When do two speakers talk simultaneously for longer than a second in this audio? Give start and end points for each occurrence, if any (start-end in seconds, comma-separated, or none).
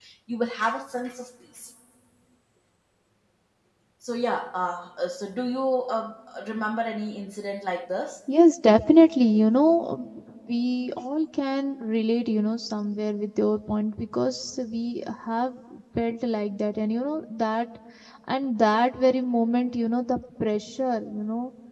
none